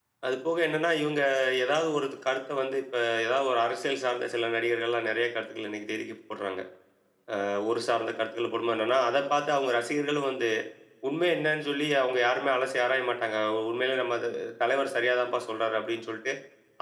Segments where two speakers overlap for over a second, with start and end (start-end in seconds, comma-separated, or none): none